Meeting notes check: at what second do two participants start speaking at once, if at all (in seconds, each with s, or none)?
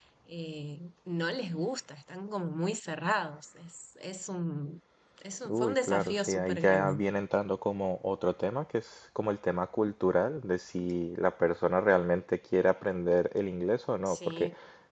5.5 s